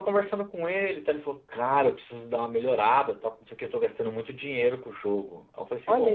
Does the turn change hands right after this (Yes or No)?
No